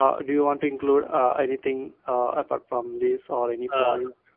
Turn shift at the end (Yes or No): Yes